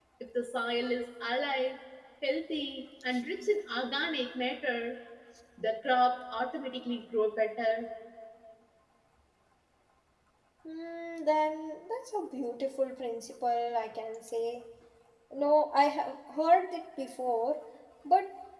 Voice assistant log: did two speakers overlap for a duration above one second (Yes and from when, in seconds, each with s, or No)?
No